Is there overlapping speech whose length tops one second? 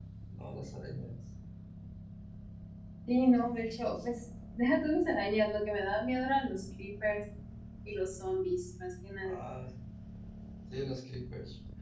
No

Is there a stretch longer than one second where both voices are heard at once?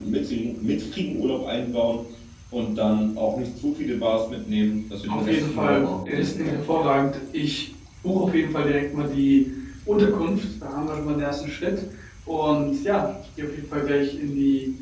Yes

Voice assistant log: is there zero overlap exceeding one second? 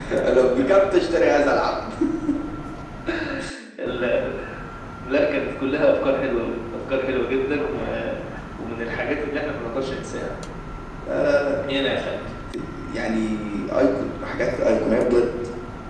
Yes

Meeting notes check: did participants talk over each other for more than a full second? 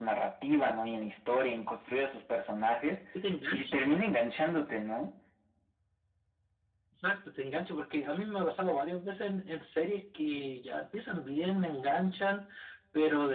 No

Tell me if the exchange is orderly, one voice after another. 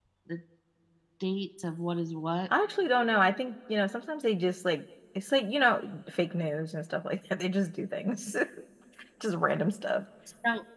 Yes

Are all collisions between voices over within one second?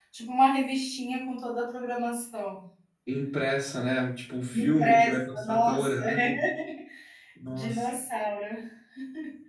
No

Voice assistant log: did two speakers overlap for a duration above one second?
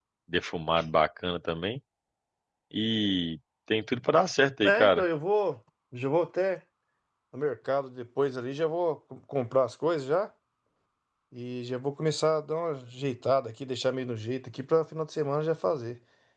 No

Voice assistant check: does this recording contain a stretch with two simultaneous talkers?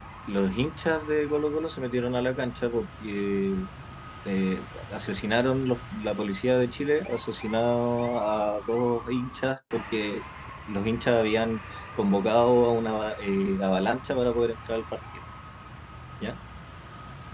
No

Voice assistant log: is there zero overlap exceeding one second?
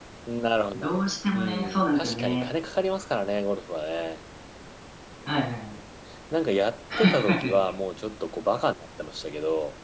No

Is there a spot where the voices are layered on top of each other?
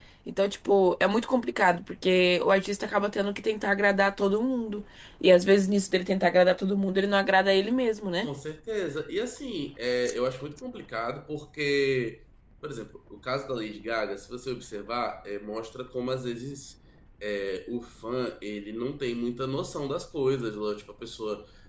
No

